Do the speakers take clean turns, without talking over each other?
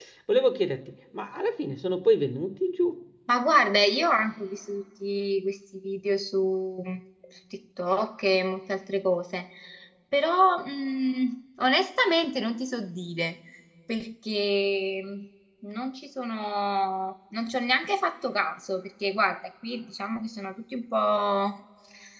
Yes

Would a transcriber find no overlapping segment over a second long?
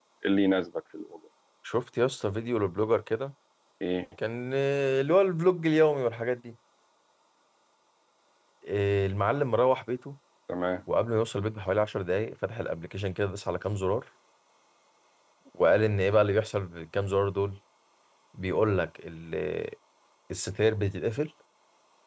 Yes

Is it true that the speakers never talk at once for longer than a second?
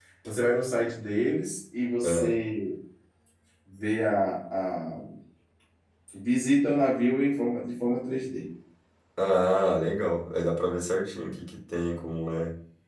Yes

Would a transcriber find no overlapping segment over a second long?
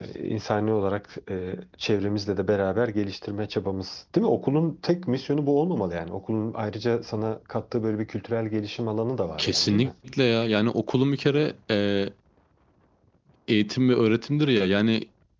Yes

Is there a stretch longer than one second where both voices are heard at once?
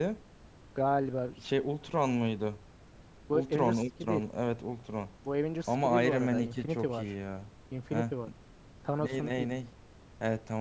Yes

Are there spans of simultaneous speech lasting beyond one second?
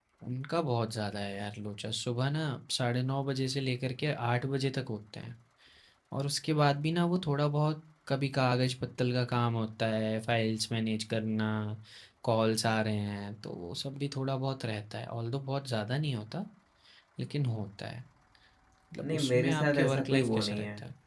Yes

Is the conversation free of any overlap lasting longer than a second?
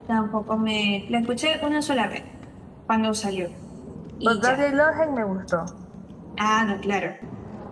Yes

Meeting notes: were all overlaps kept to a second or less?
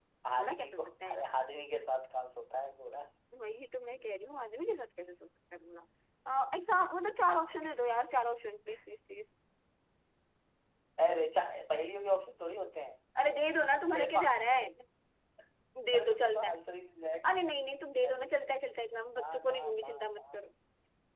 No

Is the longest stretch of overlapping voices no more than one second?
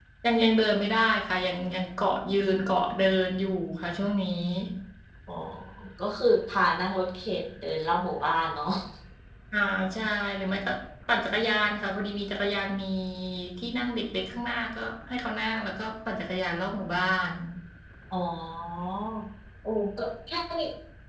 Yes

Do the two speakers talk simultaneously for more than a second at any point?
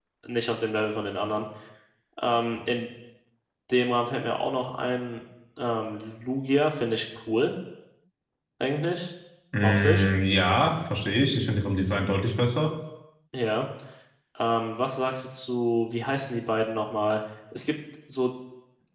No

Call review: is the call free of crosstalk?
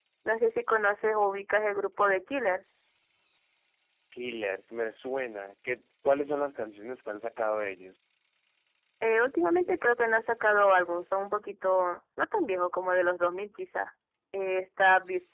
Yes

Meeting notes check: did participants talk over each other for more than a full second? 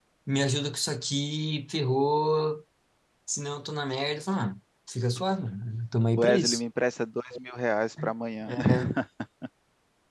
No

